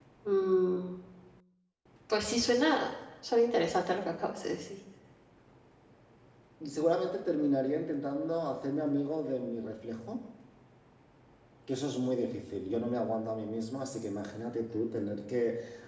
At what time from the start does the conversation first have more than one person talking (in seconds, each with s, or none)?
none